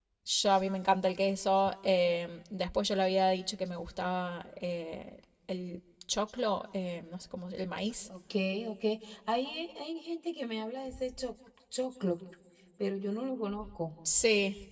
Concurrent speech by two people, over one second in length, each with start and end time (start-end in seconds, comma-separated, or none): none